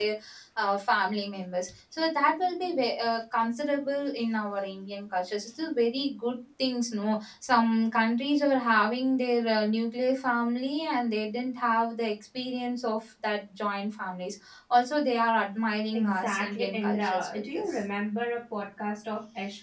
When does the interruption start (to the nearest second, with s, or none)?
16 s